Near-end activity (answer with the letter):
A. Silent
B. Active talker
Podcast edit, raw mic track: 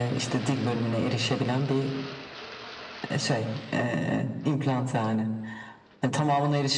A